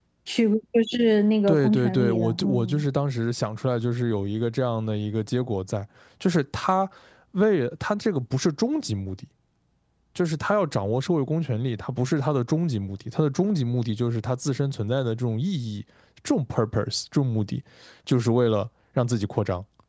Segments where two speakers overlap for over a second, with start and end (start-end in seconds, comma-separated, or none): 1.5-2.8